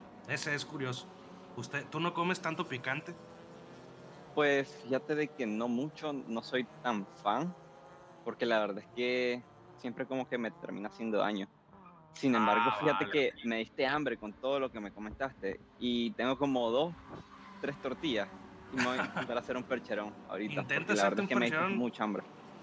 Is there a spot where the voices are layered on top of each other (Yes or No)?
Yes